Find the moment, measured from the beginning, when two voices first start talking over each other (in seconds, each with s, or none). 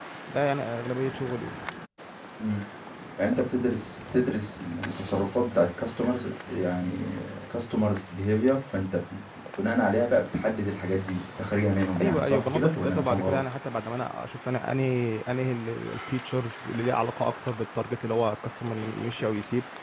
12.0 s